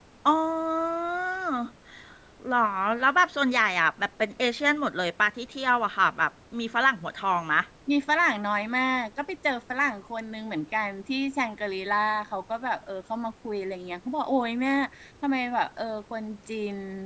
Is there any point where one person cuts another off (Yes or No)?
No